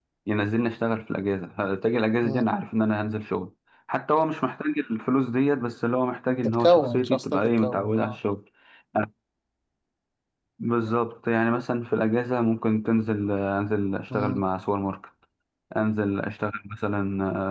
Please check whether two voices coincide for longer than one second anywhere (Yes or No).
Yes